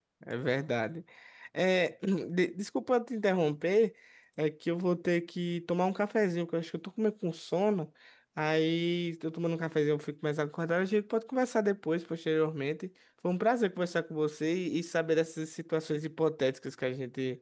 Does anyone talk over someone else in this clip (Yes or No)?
No